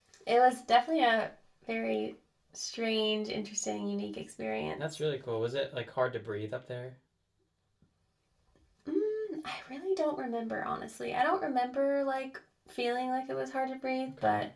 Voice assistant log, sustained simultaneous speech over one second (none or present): none